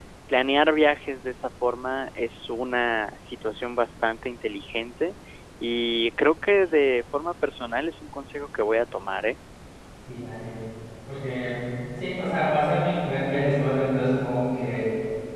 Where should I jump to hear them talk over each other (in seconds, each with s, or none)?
none